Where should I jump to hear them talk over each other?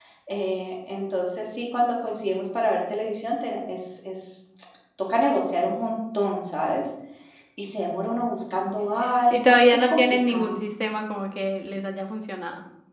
9.3 s

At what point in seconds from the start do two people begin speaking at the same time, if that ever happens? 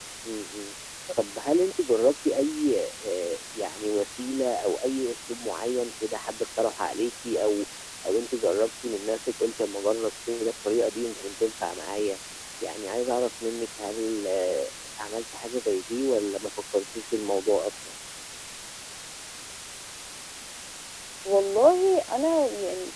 none

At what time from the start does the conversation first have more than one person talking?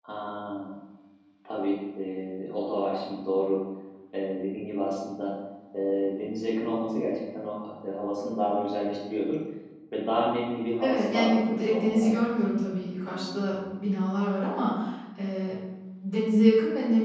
10.8 s

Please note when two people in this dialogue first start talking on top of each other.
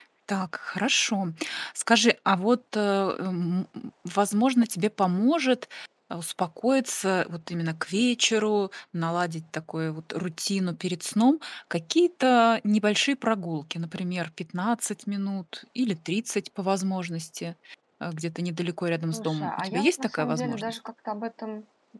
19.1 s

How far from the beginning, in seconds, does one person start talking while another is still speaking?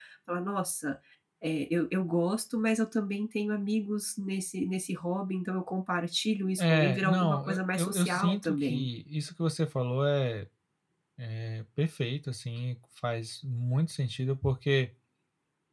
6.6 s

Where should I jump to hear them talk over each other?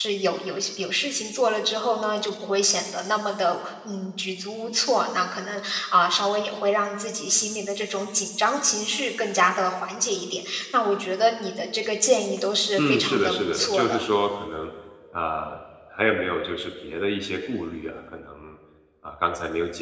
12.8 s

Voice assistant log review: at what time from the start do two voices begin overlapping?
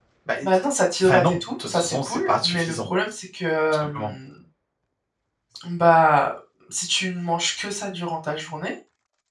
1.0 s

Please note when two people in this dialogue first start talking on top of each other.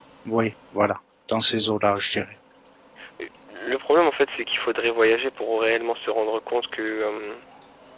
none

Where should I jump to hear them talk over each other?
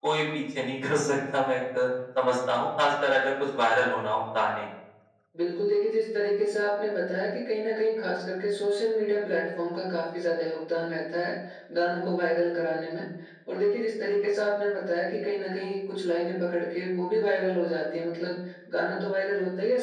none

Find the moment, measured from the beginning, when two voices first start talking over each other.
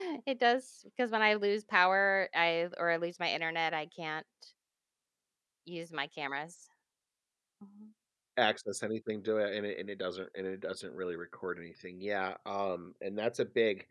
none

